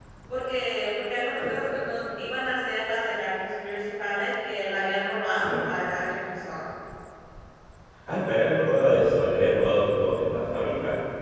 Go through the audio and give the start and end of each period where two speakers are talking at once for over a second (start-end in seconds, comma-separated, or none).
none